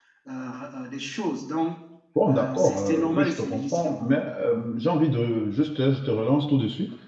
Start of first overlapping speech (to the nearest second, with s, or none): 2 s